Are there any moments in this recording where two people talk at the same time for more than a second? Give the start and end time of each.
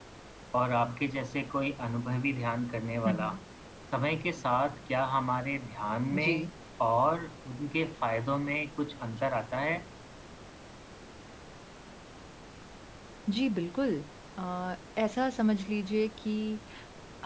none

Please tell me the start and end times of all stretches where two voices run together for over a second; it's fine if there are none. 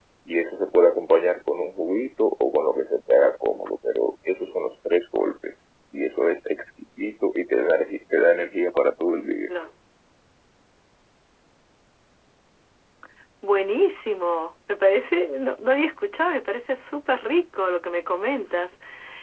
none

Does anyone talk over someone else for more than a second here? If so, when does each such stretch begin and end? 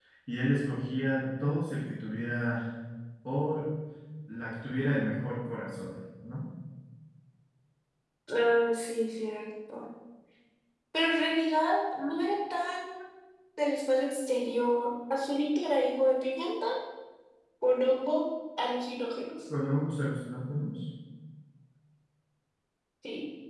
none

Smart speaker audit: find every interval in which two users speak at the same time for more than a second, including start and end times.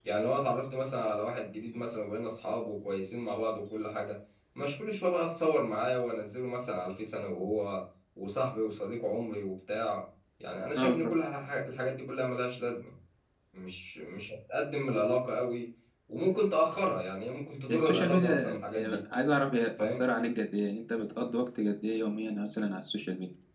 17.7-19.0

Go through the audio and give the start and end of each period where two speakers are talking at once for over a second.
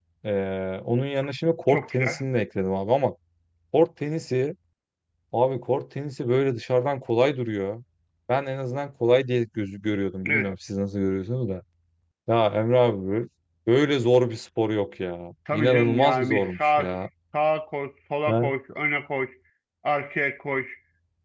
15.5-16.9

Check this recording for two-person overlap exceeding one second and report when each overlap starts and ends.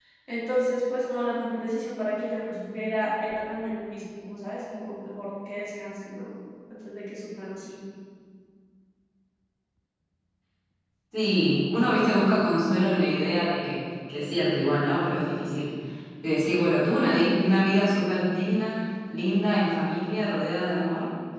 none

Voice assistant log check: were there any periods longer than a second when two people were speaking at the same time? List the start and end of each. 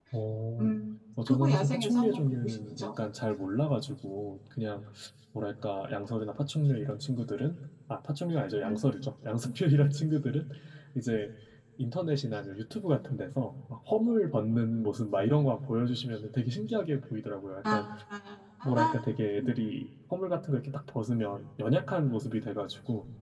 1.3-2.9

